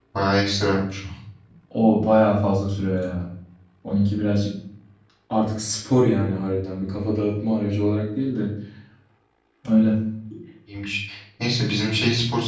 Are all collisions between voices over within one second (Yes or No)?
Yes